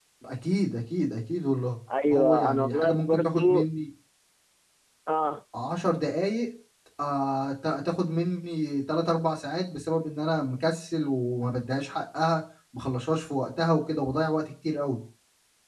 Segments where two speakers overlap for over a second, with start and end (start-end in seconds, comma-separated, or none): 2.1-3.6